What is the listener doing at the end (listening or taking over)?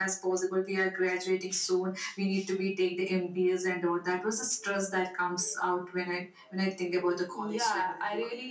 taking over